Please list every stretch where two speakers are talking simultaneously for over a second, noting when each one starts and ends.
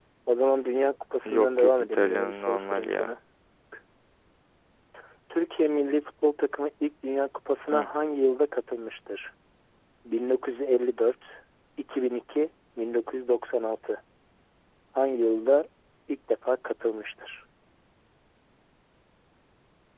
1.2-3.1

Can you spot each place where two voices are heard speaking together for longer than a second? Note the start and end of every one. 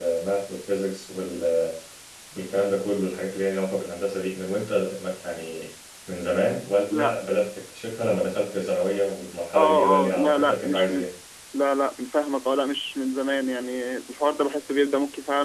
9.6-11.0

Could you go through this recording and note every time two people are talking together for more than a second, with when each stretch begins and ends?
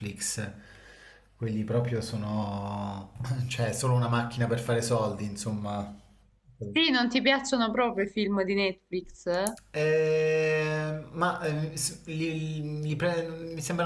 none

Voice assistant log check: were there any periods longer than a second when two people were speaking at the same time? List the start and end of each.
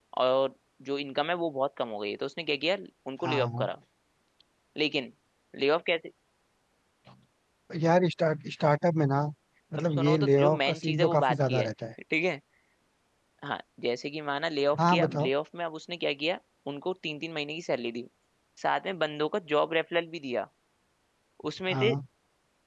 9.9-11.7

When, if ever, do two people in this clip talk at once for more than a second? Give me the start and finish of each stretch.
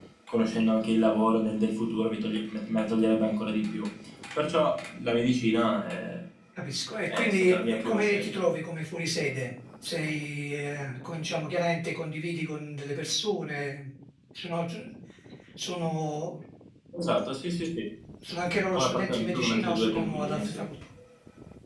7.1-8.4, 18.7-20.6

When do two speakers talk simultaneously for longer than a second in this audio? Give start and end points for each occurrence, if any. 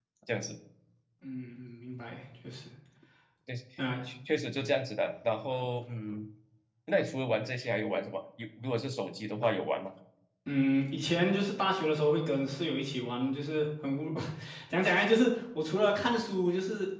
none

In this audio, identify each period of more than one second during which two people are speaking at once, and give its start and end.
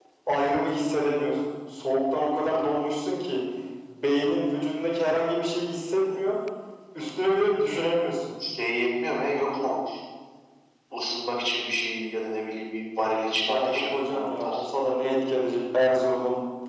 13.4-14.7

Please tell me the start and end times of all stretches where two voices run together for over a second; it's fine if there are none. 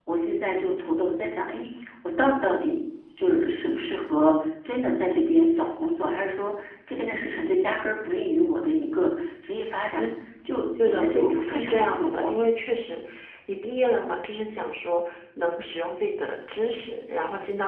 10.8-12.3

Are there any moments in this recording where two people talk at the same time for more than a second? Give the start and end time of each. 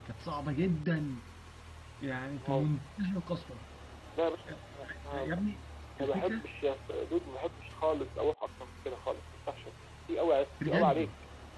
none

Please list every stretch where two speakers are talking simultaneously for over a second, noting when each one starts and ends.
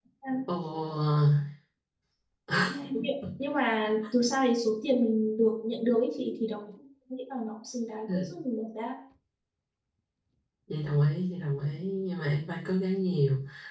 none

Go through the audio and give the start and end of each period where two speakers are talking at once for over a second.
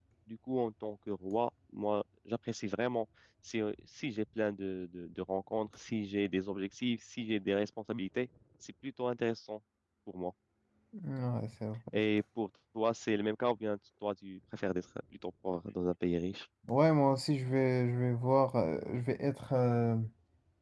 none

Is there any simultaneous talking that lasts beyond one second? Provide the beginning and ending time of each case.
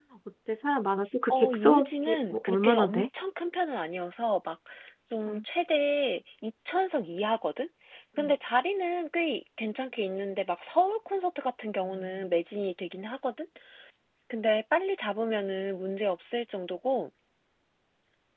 1.3-3.0

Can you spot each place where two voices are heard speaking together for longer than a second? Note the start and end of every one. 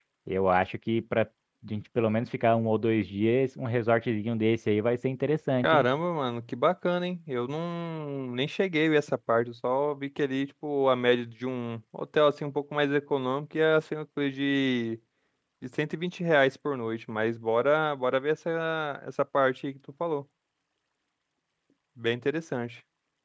none

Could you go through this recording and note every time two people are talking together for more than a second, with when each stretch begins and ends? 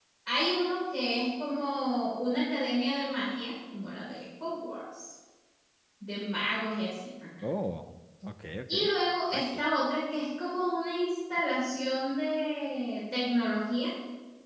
none

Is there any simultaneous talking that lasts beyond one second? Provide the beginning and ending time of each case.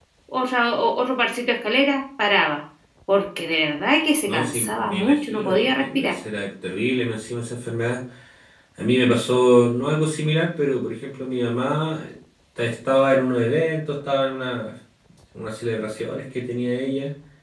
4.3-6.2

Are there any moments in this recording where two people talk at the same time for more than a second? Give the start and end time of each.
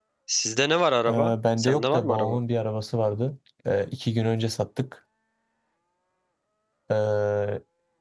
1.1-2.4

